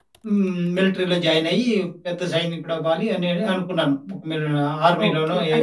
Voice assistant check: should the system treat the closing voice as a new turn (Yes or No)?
Yes